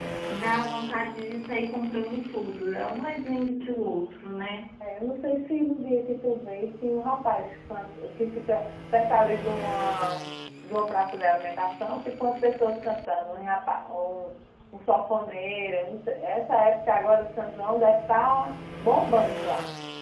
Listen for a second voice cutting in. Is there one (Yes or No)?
No